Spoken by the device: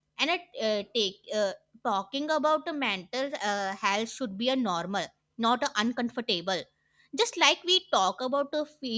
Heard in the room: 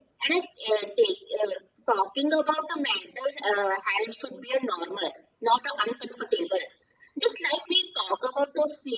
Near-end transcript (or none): none